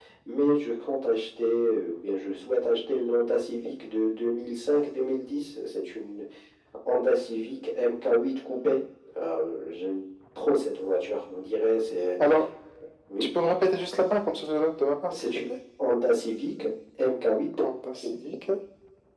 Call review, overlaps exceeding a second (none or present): none